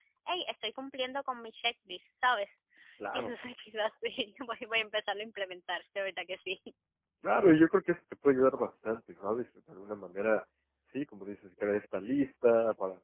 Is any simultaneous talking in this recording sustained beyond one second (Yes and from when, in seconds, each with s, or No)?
No